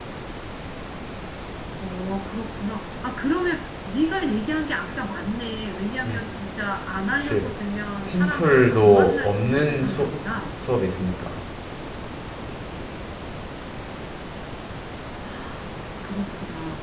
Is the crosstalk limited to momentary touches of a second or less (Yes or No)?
No